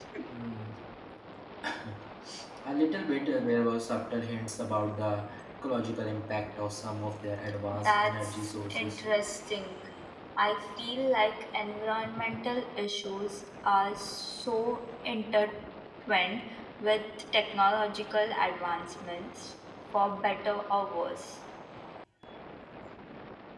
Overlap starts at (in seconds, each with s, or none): 7.7 s